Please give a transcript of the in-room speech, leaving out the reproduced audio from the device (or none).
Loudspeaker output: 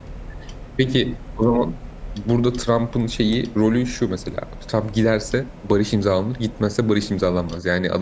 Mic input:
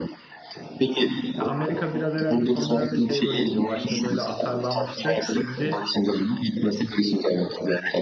Ya Amerika biraz herhalde son dönemde şey rolü izliyor. Başta böyle atarlanmıştı. Şimdi